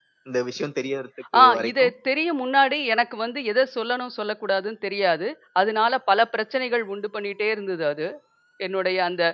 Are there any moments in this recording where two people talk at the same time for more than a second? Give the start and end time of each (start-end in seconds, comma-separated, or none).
none